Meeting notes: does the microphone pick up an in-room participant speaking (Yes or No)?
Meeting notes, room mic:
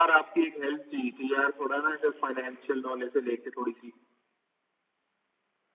No